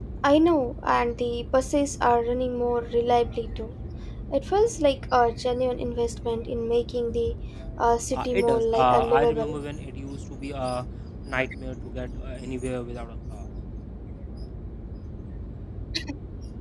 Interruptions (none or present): present